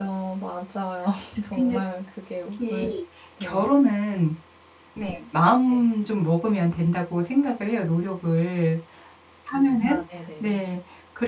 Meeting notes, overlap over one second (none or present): none